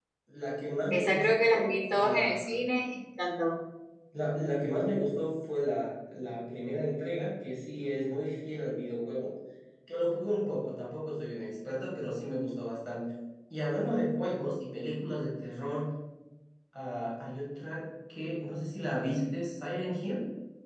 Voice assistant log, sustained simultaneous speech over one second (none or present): present